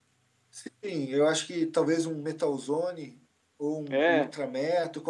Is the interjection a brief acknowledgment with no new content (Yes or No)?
Yes